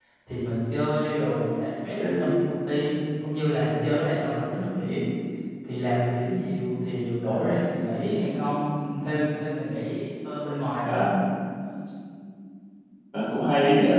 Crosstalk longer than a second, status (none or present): none